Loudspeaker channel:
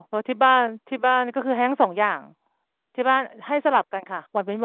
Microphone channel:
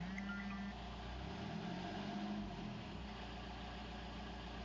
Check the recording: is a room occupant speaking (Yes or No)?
No